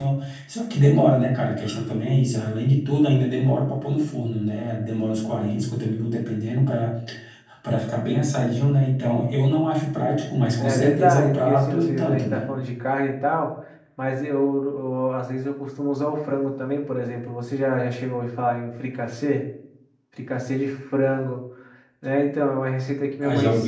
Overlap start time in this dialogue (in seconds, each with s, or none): 10.6 s